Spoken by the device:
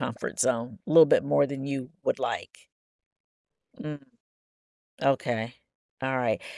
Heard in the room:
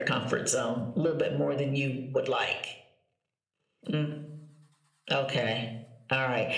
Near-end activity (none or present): none